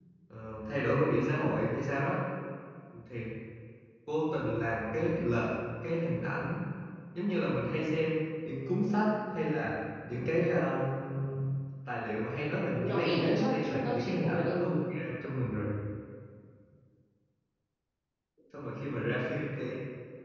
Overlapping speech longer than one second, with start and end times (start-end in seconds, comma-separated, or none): 12.7-14.5